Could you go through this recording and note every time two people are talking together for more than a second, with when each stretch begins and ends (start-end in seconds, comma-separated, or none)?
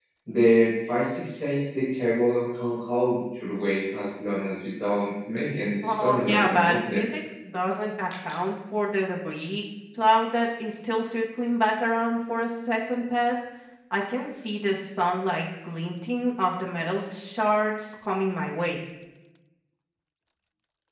5.8-7.2